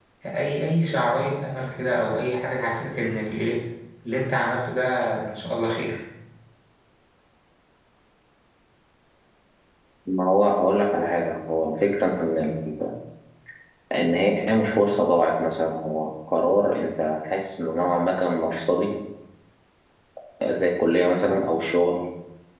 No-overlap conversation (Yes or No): Yes